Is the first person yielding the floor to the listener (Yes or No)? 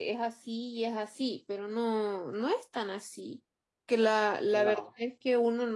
No